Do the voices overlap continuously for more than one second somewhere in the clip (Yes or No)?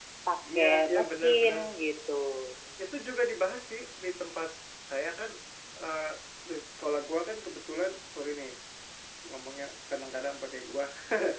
Yes